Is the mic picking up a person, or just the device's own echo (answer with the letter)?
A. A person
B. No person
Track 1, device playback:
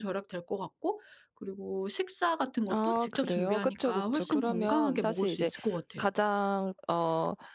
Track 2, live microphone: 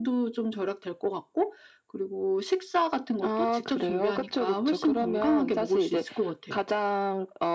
B